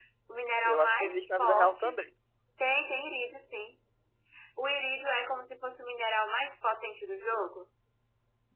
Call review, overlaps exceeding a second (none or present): present